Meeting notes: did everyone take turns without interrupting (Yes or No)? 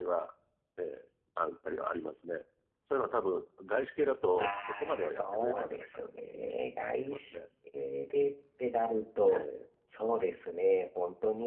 No